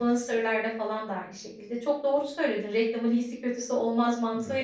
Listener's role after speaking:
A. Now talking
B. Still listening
B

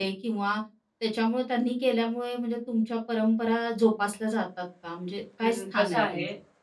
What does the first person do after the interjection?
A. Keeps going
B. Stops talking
B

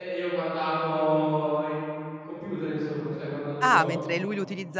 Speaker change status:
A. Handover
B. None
A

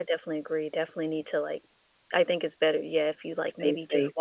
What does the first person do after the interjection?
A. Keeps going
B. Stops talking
A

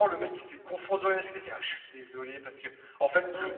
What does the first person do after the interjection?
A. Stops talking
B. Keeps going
B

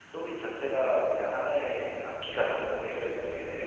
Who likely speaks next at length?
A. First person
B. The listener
B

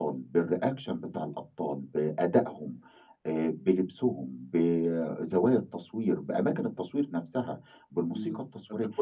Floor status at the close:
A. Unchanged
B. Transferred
B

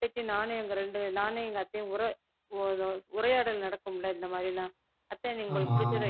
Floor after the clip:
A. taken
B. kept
B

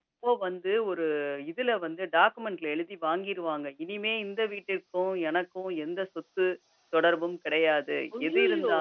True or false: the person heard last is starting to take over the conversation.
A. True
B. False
B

